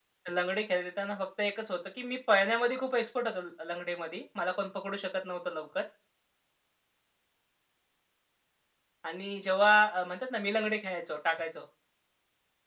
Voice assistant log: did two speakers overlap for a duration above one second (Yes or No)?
No